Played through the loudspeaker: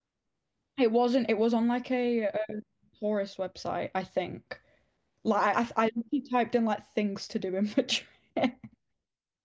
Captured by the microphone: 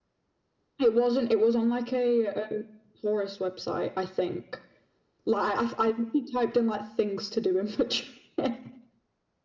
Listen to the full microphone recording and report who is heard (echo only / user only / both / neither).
echo only